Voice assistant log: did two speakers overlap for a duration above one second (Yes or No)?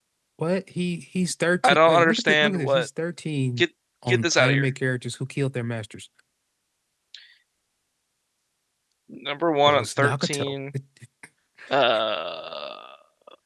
Yes